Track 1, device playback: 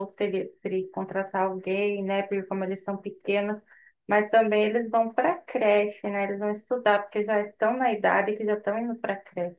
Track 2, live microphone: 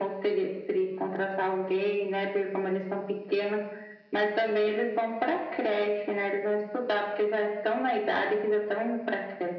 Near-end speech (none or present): none